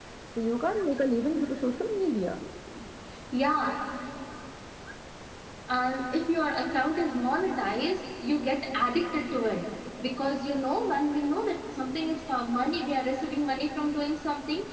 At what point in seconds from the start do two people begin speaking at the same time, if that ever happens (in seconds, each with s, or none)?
none